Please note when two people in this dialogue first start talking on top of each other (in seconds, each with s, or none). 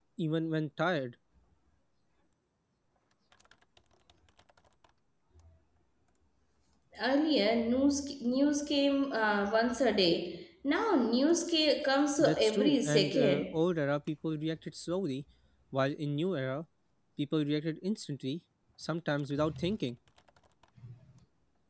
12.2 s